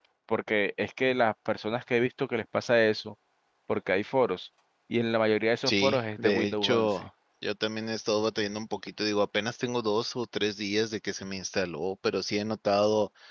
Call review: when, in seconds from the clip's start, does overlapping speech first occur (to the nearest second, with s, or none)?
6 s